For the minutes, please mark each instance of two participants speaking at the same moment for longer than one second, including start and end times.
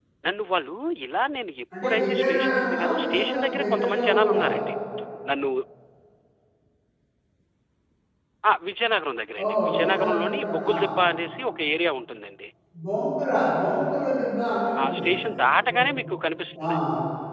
1.8-4.4, 9.4-10.8

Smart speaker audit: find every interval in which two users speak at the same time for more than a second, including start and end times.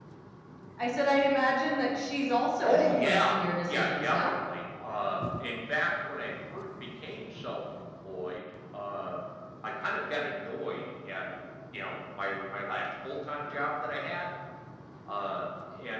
2.6-4.3

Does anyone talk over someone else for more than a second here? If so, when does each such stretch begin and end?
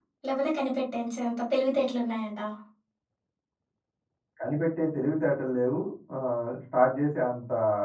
none

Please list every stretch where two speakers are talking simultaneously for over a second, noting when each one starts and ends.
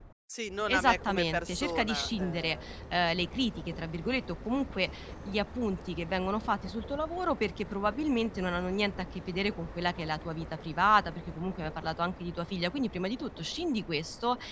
0.7-2.6

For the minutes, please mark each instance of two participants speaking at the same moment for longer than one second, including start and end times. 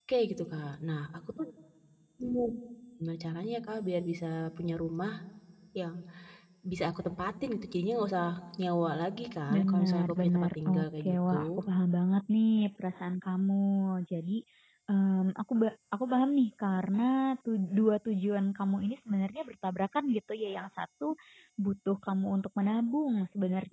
9.5-11.6

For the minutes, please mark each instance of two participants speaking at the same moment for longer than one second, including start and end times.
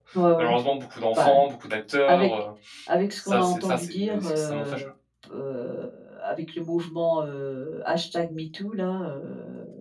3.2-4.8

